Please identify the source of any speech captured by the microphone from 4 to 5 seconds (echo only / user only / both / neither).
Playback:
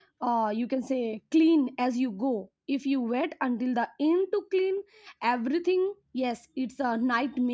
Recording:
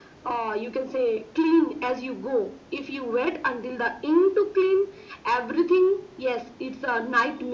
echo only